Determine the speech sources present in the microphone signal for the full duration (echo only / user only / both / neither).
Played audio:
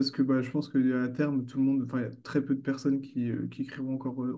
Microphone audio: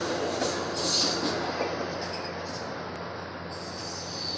neither